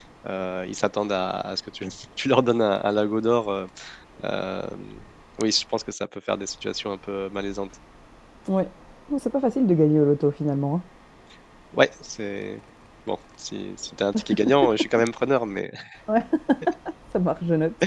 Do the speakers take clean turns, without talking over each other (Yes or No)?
Yes